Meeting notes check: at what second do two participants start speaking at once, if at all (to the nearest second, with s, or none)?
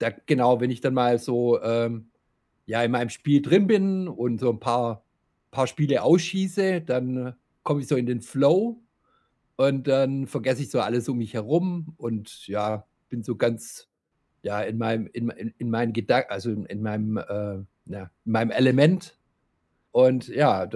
none